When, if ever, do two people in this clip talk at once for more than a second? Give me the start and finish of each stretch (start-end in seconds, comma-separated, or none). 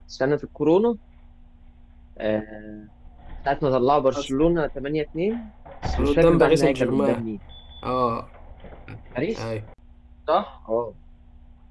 6.0-7.2